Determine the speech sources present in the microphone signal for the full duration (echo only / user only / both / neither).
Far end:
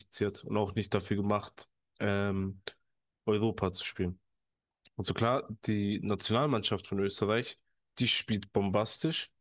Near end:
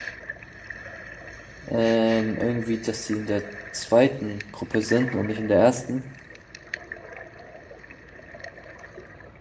user only